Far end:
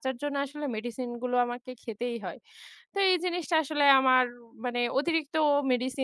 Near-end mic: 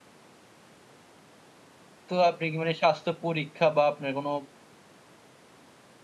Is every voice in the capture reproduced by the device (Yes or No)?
No